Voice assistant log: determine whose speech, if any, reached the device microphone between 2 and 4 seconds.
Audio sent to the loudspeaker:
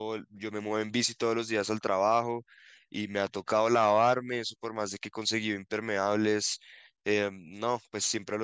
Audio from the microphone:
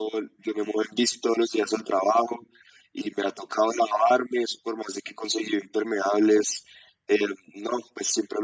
echo only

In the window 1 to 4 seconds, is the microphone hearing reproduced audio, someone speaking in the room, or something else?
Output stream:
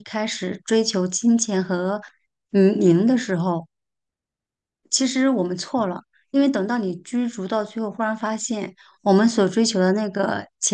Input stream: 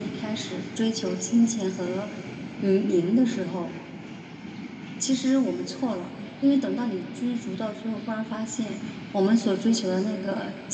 echo only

